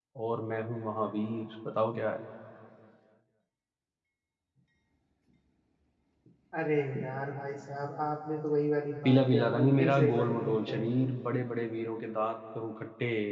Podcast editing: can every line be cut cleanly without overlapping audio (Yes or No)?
No